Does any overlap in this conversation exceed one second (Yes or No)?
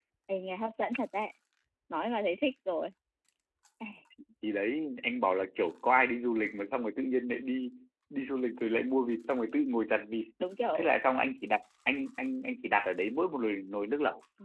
No